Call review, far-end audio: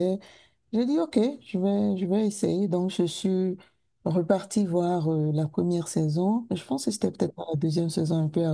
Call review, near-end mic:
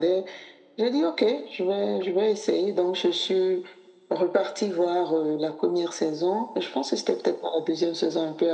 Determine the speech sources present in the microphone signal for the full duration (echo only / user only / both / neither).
echo only